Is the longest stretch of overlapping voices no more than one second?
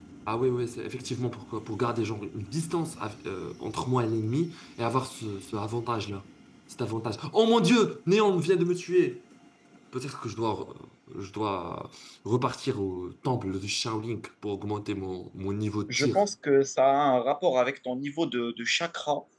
Yes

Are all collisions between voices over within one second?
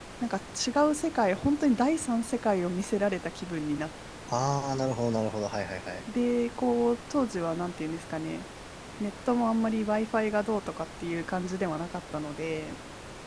Yes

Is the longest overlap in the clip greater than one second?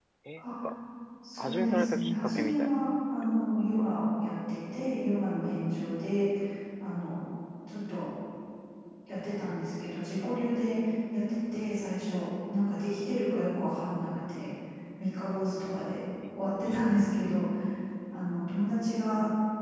Yes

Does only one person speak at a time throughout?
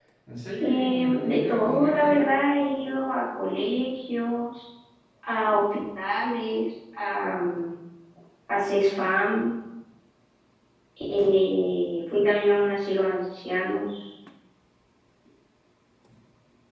No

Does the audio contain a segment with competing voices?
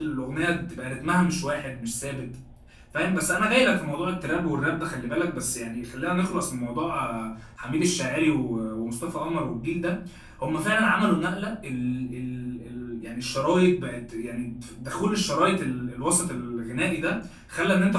No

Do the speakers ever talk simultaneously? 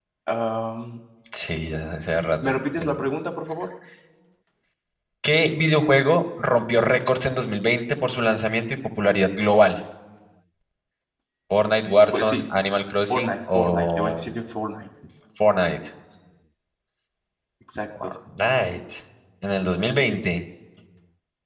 Yes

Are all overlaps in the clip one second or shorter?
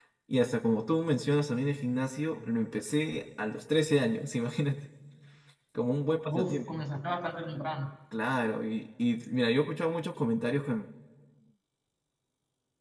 Yes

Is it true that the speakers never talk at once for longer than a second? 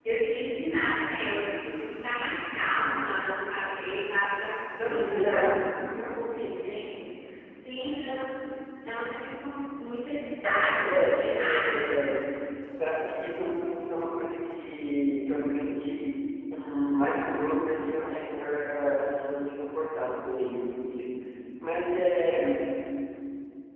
No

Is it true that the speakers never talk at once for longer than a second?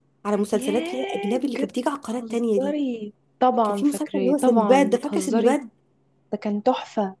No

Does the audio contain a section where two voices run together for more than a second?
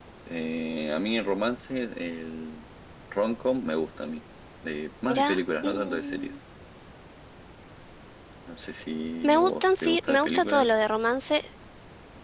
Yes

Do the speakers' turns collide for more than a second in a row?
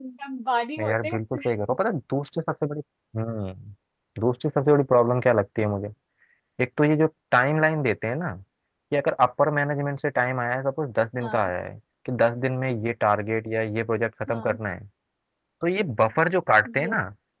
No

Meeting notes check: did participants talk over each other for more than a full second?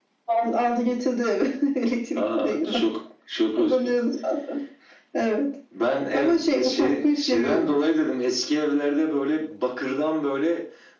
Yes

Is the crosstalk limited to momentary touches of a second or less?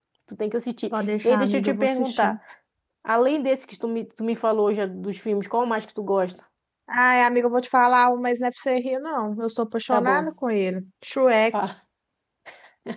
No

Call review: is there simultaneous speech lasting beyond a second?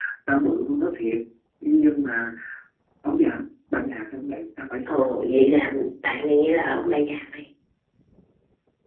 No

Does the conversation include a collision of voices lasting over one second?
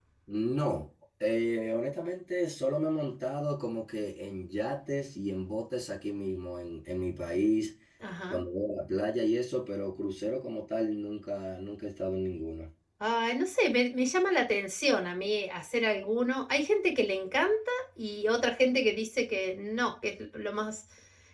No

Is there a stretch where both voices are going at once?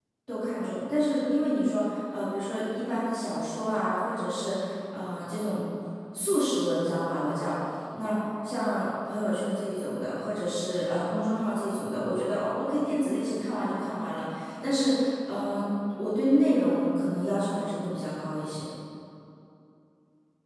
No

